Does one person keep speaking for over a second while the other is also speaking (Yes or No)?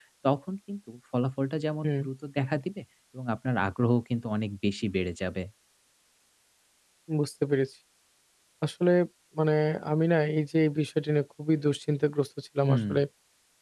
No